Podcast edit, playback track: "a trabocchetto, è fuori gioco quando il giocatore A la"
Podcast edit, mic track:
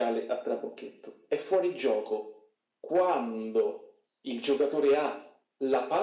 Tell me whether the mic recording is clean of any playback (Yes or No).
No